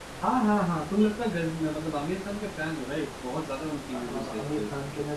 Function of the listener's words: taking over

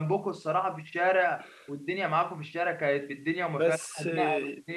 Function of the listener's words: listening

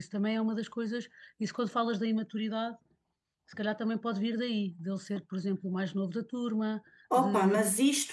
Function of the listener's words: taking over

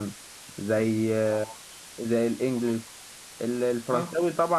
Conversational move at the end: listening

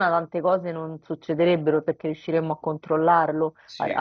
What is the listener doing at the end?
listening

